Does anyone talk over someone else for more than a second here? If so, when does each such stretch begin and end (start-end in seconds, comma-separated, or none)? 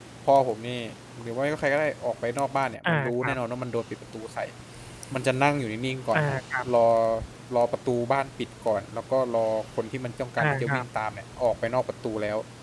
none